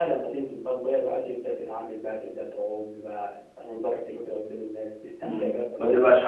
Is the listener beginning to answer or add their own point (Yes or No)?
Yes